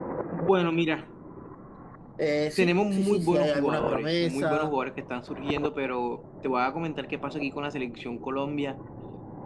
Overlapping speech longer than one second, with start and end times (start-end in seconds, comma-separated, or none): 2.6-4.7